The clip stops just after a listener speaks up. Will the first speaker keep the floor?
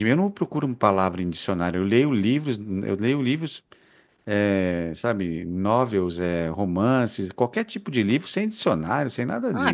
No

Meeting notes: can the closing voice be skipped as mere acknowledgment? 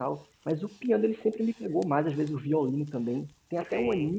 Yes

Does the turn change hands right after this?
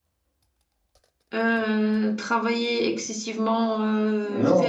No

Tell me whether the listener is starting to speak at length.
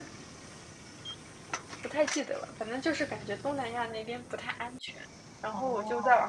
No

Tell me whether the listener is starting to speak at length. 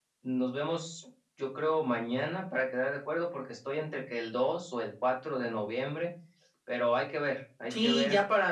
Yes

